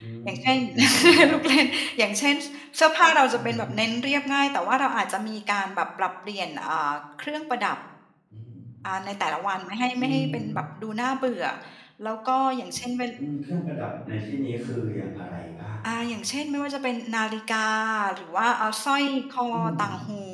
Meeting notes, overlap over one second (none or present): none